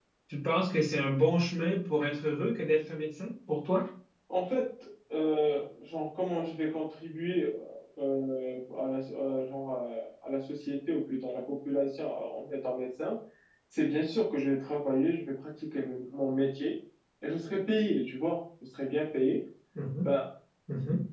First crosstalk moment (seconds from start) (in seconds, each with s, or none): none